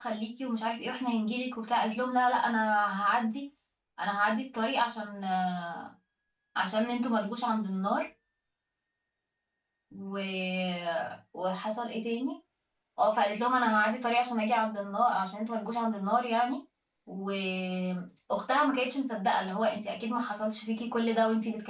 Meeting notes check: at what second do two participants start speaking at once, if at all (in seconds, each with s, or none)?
none